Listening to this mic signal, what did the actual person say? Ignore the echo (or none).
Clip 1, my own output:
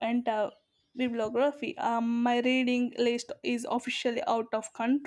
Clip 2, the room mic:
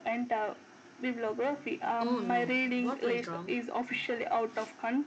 Oh no, what went wrong?